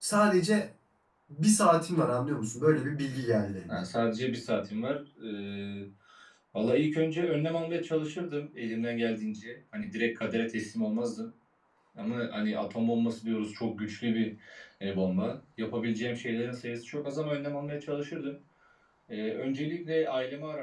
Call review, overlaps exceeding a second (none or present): none